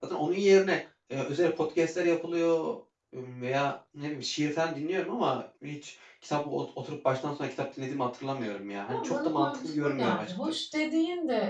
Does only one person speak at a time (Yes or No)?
No